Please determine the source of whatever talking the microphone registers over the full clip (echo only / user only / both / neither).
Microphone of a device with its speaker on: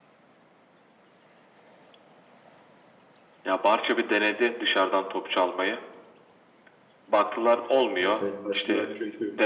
both